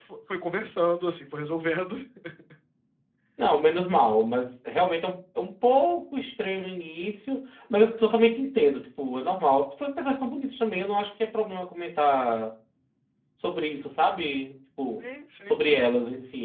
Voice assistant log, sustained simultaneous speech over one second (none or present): none